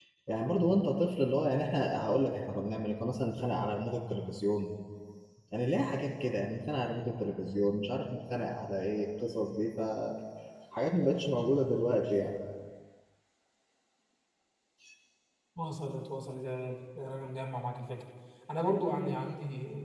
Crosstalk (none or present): none